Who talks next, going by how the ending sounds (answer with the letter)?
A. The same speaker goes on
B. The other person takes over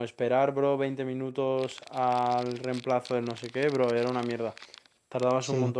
A